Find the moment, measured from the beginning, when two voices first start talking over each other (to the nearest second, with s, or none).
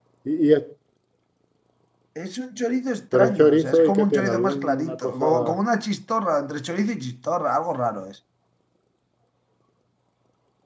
3 s